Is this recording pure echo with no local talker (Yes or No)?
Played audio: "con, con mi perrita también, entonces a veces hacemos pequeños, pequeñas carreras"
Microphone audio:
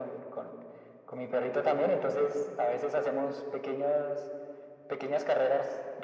Yes